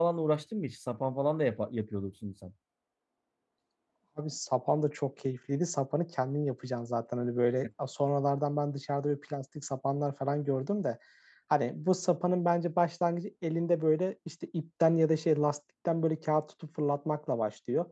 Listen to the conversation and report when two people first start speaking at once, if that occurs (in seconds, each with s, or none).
none